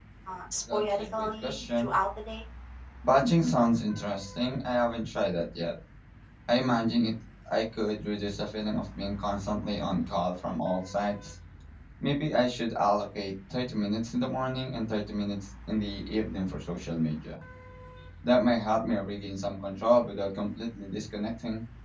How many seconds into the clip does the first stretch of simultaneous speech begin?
1 s

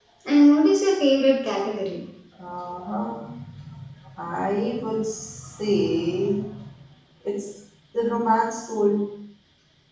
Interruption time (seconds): none

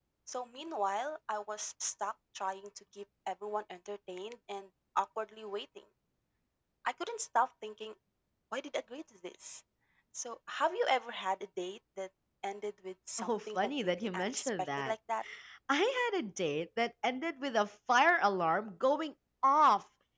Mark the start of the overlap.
13 s

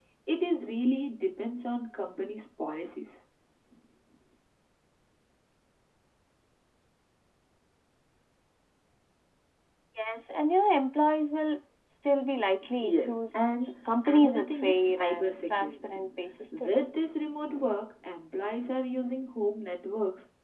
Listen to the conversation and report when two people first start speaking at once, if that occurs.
13 s

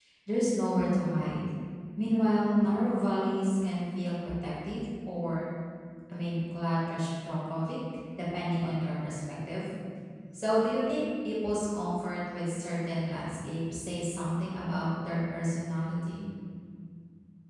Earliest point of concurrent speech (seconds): none

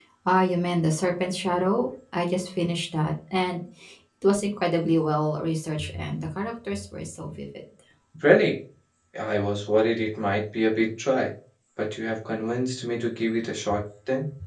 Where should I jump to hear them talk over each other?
none

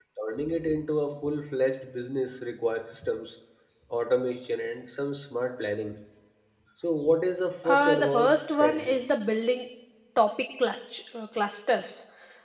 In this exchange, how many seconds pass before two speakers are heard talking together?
8 s

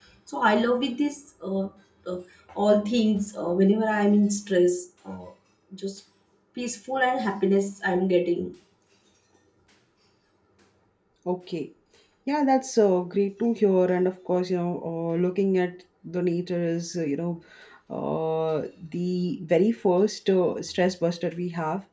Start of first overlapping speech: none

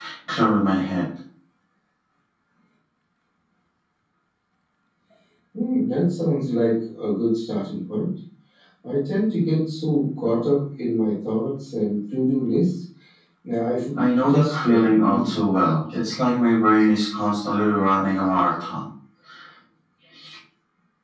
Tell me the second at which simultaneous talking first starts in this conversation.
14 s

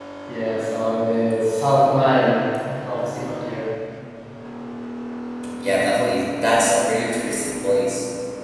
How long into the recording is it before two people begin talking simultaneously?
none

